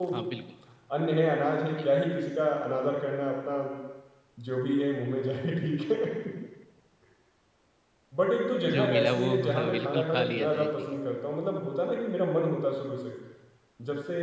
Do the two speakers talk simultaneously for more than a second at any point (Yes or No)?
Yes